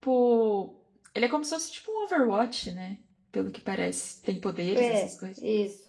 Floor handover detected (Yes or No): Yes